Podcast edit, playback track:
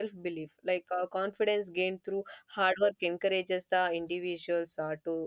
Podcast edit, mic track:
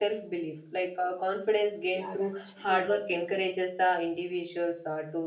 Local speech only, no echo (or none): yeah, that's true.